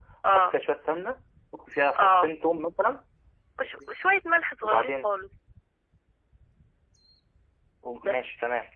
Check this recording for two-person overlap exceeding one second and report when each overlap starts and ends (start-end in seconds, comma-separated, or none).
none